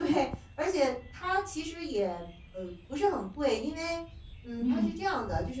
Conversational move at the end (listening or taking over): listening